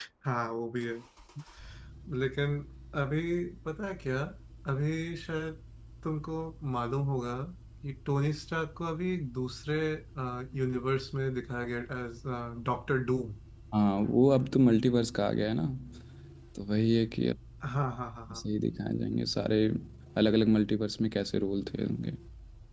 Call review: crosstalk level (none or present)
none